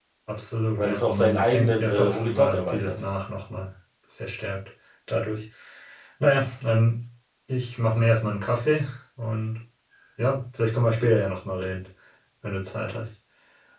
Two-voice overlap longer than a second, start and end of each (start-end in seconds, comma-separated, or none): 0.8-2.9